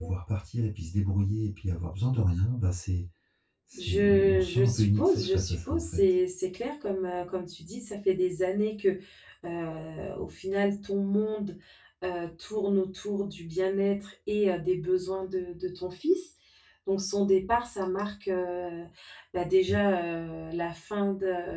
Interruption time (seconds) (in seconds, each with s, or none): 3.8 s